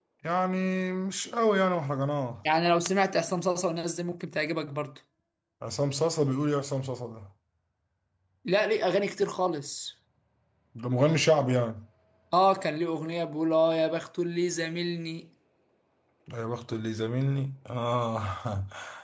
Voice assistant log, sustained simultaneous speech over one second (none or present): none